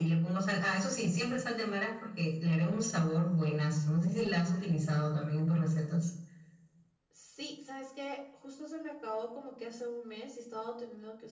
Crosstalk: none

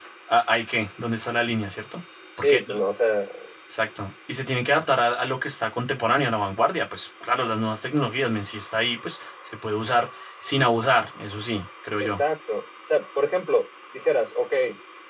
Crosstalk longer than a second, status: none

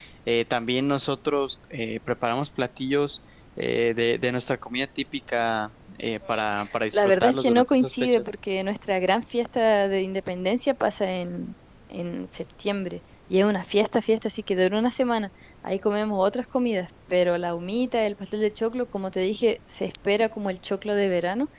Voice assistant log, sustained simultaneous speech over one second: present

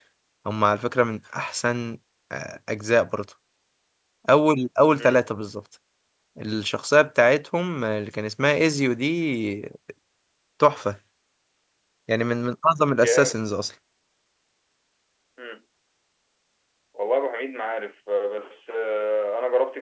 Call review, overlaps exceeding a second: none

